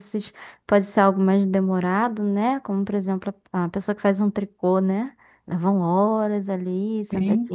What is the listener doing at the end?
listening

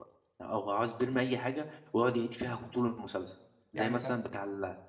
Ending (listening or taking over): listening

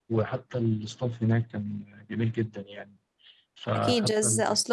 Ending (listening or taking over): taking over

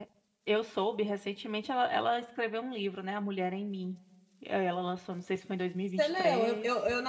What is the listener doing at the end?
taking over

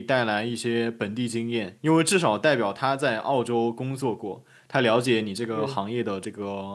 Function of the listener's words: listening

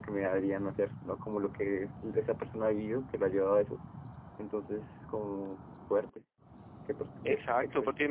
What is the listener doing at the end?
taking over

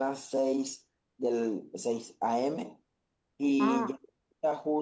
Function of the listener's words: listening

